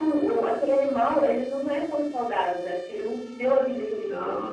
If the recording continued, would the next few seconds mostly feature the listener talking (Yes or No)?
No